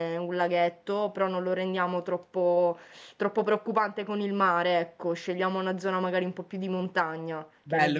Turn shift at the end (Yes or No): Yes